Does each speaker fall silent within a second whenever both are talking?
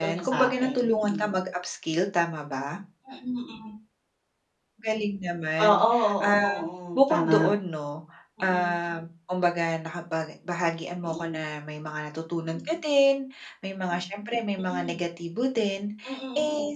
No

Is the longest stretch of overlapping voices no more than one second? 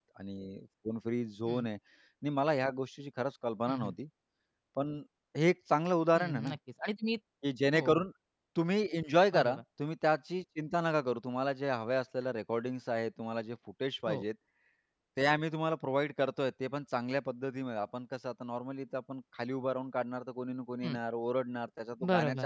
Yes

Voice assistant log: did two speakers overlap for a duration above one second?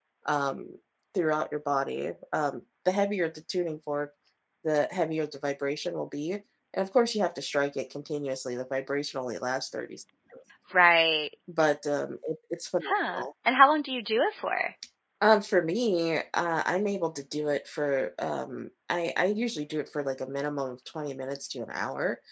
No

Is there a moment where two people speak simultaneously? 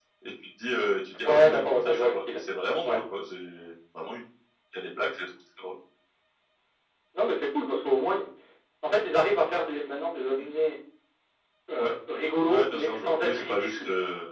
Yes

